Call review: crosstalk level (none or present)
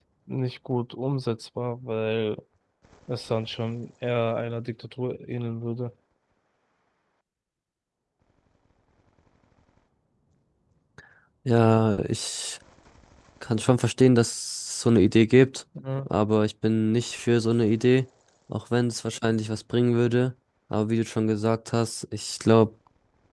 none